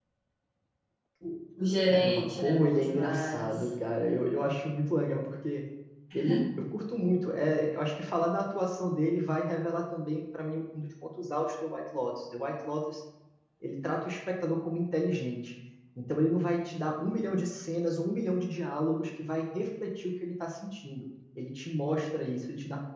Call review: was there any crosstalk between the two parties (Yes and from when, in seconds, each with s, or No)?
Yes, from 1.9 s